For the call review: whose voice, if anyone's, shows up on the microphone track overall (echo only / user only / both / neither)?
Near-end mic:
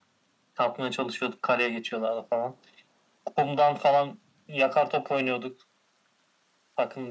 echo only